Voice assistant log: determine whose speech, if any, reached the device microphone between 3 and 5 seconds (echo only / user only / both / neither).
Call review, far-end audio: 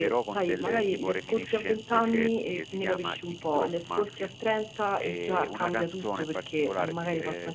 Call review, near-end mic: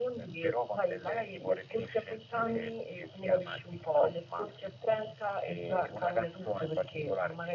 echo only